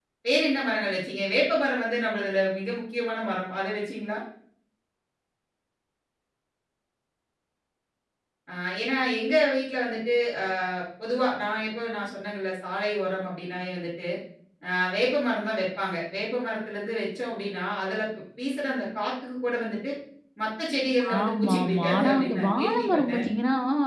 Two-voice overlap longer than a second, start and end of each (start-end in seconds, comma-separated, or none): 21.2-23.2